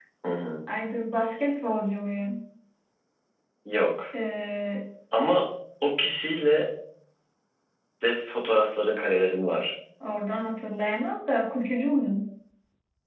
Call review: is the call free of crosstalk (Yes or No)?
Yes